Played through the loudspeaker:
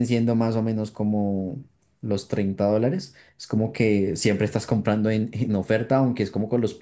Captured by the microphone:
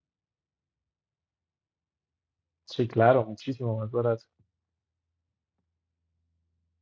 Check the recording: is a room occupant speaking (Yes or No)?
Yes